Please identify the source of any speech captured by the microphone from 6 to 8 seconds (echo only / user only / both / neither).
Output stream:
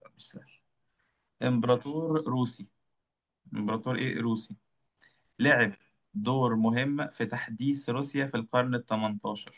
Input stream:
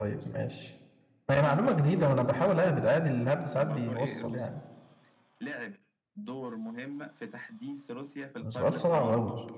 echo only